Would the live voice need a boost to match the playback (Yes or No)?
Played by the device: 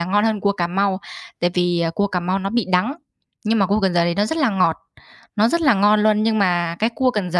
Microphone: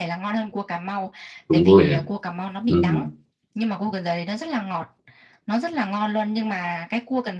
No